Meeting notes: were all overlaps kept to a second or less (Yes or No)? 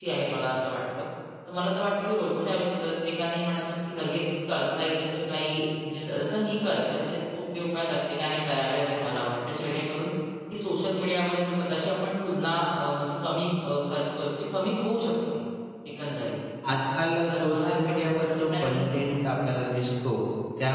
No